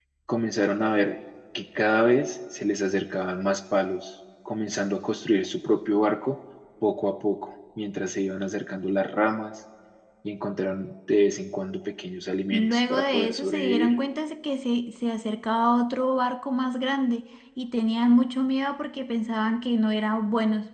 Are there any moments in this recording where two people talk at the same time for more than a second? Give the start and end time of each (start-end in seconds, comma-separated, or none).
12.5-13.9